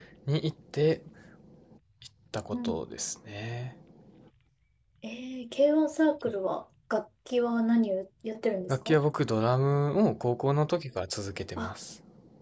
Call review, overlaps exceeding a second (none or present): none